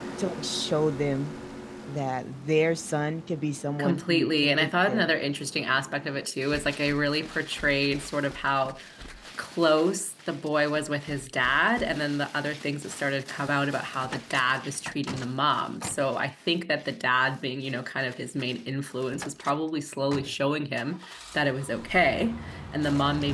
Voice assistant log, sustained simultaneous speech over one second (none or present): present